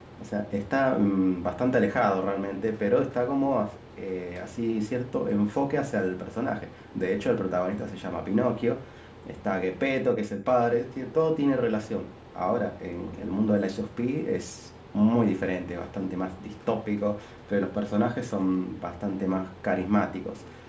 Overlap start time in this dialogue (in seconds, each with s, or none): none